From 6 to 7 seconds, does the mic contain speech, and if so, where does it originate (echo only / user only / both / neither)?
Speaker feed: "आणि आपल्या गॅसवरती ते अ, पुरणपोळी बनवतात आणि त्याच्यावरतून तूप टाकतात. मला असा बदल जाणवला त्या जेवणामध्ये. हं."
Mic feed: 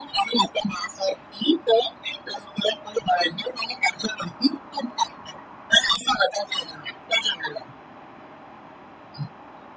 echo only